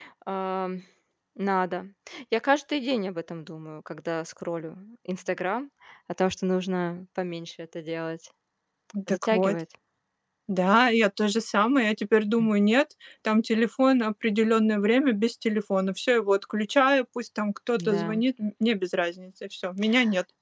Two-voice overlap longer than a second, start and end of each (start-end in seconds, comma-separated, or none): none